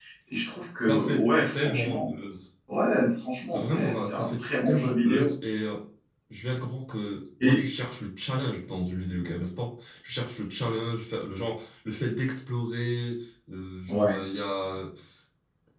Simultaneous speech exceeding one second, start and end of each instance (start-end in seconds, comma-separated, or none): 0.9-2.1, 3.5-5.3